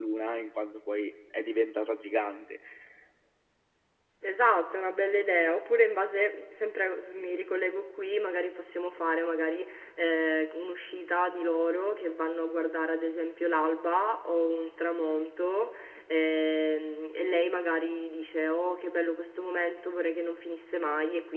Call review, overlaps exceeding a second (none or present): none